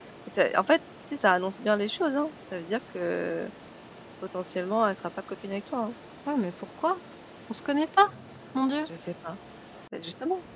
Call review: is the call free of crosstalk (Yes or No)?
Yes